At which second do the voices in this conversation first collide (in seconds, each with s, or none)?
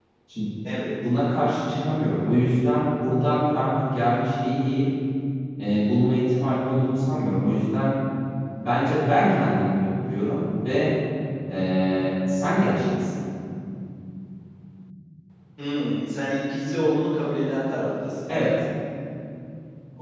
none